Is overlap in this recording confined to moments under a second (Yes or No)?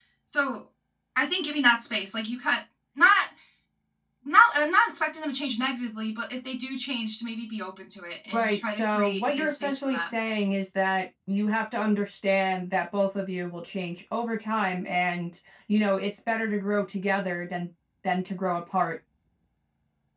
No